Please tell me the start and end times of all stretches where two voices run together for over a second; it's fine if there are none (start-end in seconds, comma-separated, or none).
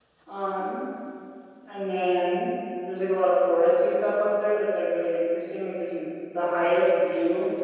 none